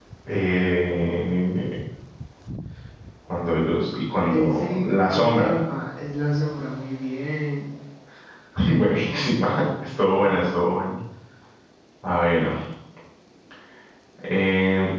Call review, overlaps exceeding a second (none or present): present